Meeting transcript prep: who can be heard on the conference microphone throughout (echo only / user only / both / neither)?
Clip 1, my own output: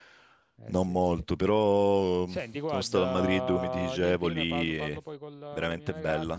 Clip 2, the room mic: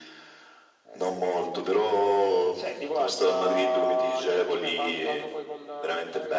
echo only